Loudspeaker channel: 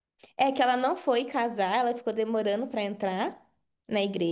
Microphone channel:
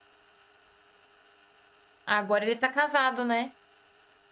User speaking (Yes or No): Yes